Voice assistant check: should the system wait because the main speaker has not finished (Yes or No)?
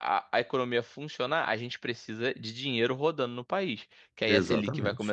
Yes